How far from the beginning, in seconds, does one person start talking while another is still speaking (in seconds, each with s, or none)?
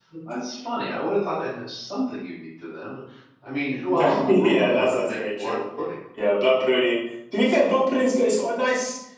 3.9 s